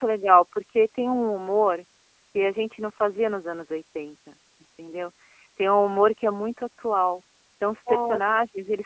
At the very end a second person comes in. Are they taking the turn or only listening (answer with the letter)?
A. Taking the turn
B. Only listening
B